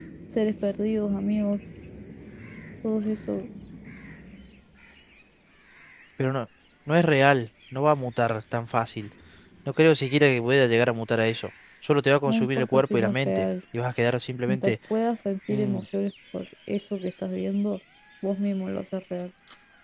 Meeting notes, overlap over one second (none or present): present